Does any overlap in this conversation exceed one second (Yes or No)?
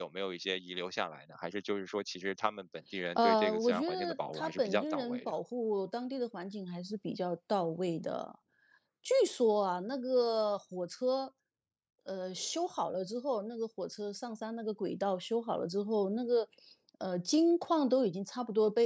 Yes